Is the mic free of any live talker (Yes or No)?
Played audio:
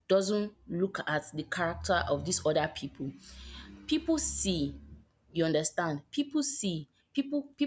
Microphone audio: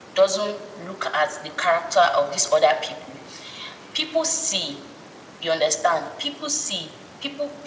Yes